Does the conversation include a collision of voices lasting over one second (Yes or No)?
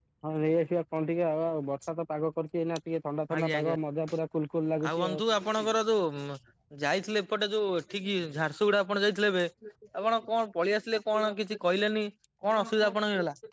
No